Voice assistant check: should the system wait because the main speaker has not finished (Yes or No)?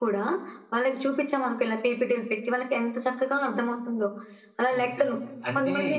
No